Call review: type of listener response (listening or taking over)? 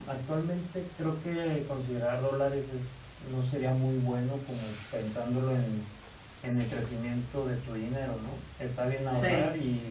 listening